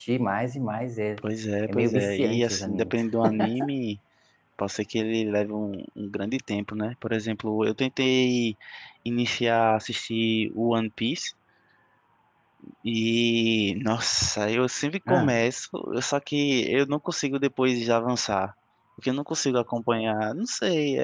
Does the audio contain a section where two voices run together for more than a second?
Yes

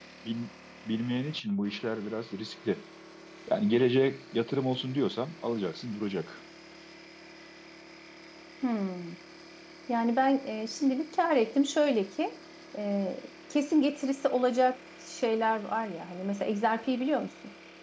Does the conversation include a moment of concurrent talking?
No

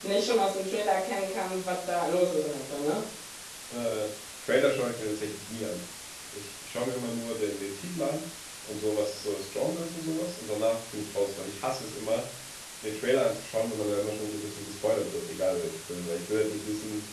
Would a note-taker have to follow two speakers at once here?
No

